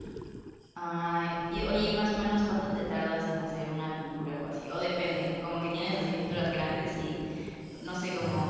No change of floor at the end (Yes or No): Yes